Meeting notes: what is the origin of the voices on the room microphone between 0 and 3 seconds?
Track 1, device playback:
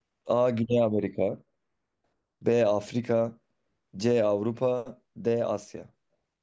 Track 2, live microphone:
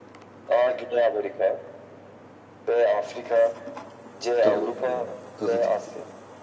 echo only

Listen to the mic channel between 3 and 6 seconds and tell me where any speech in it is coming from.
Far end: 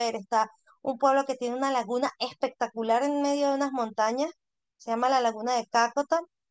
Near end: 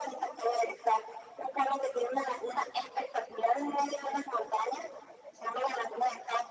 echo only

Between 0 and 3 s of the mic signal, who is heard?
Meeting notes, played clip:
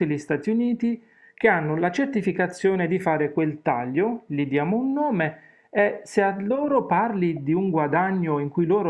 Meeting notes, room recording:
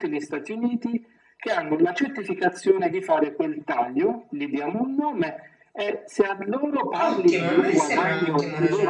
echo only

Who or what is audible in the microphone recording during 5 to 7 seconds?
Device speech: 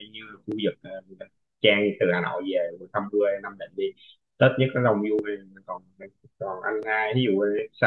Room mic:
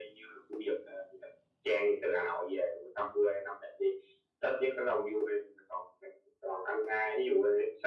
echo only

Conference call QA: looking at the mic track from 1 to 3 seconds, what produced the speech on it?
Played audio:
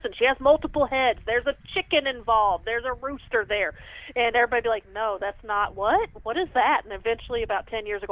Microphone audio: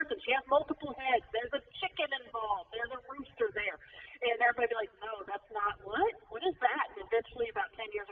echo only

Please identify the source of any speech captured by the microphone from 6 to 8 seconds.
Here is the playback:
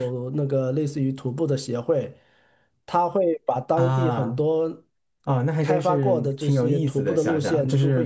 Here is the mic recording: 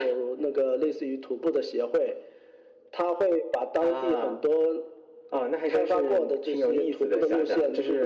echo only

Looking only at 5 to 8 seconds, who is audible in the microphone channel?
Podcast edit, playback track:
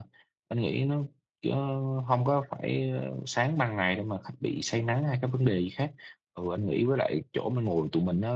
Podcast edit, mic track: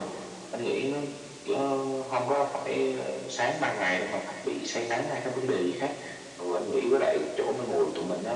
echo only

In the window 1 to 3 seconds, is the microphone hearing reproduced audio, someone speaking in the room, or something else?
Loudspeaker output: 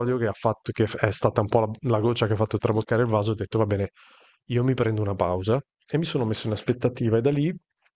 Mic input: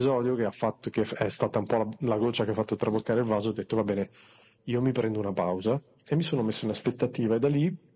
echo only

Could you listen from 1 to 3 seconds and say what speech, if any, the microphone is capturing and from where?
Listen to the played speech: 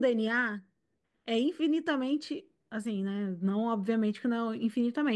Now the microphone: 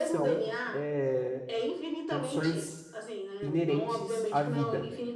both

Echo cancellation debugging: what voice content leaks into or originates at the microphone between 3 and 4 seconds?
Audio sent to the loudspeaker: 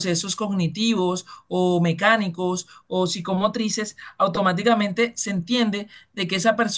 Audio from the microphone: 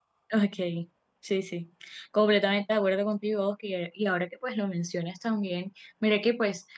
user only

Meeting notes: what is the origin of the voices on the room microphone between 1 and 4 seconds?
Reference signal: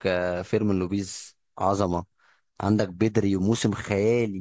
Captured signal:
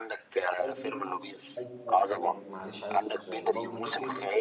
both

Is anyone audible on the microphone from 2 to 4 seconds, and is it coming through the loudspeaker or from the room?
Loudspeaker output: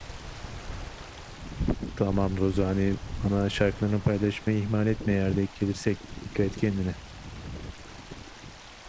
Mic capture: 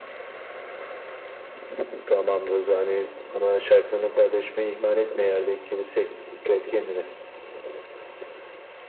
echo only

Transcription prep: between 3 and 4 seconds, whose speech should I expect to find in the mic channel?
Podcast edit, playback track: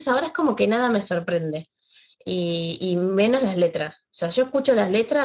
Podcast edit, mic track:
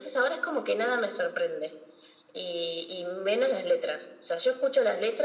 echo only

